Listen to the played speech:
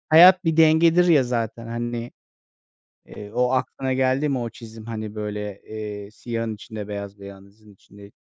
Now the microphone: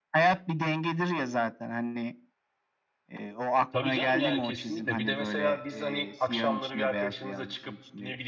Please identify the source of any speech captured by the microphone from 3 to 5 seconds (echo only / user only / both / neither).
both